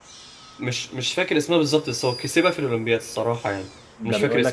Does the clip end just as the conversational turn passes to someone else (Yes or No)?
Yes